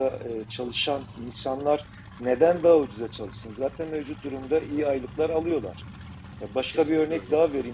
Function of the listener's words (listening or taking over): listening